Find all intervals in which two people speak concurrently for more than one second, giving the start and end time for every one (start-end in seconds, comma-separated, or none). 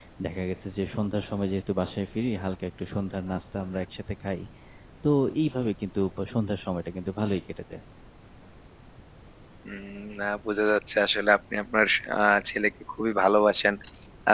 none